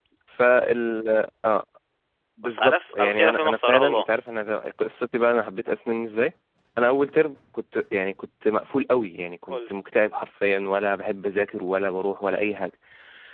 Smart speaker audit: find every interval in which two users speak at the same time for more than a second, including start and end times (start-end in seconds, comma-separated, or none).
2.4-4.0